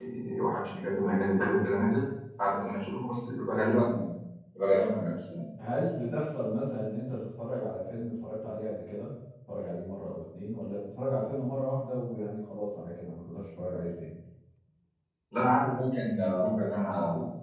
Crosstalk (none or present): none